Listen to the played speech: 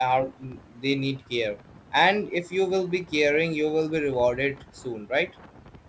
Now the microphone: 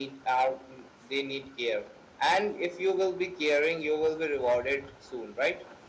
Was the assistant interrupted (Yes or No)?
No